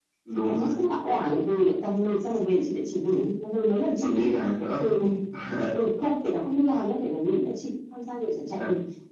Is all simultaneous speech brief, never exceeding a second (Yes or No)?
Yes